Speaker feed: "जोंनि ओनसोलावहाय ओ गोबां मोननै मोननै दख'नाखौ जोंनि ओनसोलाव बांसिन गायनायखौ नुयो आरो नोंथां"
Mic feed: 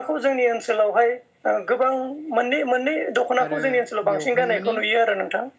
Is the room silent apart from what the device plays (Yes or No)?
No